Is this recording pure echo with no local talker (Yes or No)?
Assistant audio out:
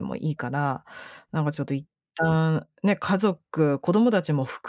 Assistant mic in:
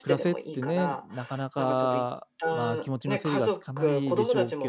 No